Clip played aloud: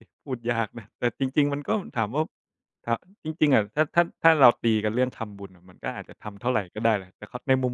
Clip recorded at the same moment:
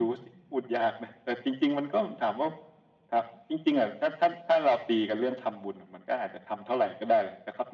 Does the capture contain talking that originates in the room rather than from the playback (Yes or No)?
No